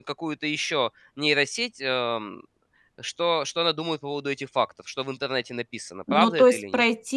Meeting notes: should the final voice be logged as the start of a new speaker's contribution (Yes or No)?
Yes